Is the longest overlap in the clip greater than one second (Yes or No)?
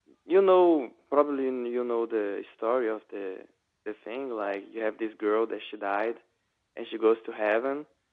No